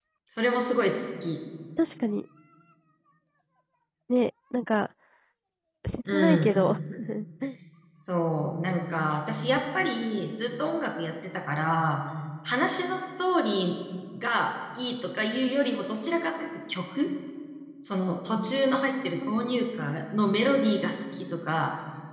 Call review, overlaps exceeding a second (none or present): none